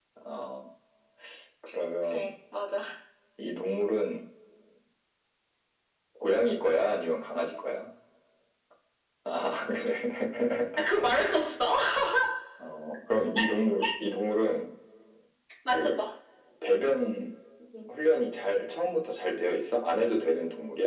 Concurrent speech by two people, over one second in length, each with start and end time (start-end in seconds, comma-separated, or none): none